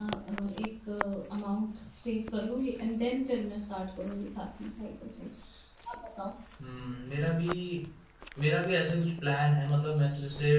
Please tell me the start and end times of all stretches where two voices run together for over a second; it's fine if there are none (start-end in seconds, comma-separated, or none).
none